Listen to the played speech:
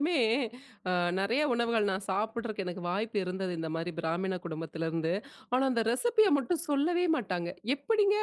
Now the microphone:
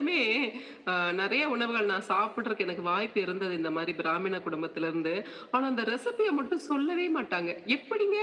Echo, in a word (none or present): present